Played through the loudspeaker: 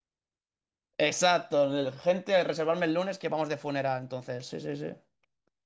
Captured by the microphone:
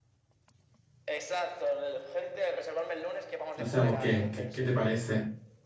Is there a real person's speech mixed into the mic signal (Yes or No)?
Yes